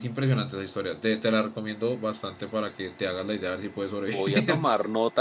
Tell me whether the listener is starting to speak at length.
Yes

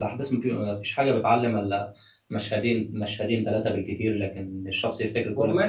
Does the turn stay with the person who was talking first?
No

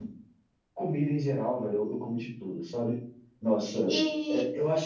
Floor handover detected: No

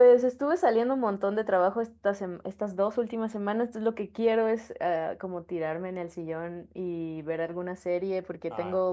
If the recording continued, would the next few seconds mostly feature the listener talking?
No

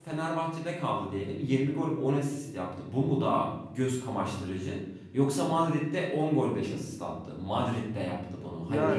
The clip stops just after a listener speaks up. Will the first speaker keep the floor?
No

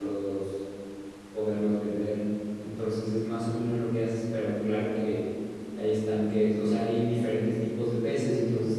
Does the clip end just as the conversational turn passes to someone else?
No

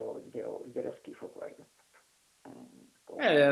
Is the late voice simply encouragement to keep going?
No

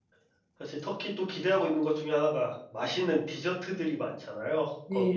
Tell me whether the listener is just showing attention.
Yes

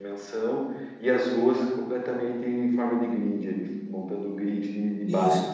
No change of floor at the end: No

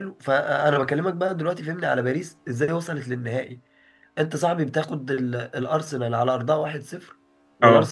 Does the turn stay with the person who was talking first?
Yes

